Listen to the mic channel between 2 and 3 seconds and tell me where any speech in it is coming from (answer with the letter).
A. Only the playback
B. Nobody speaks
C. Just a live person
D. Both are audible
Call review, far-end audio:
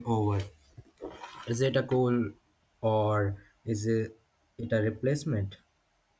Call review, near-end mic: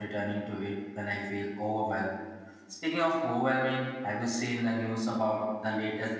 C